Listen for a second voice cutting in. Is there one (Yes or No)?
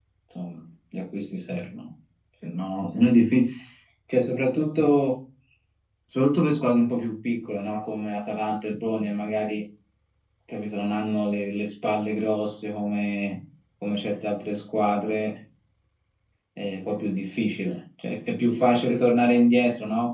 No